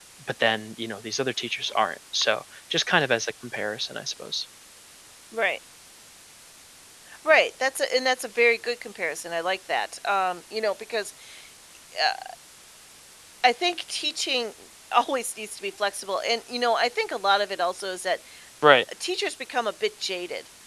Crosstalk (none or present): none